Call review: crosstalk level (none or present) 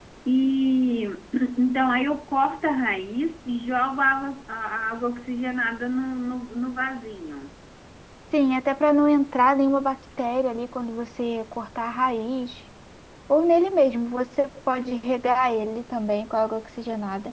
none